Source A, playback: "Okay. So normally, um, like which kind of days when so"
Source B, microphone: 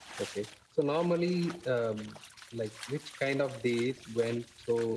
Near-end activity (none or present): none